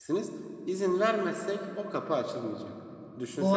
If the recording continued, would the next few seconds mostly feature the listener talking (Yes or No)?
No